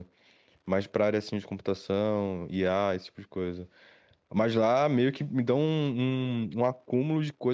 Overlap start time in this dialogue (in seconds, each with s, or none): none